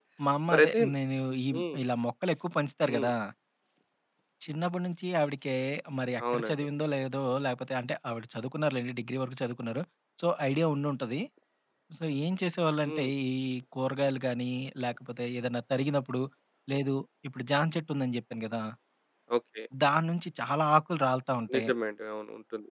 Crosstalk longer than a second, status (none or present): none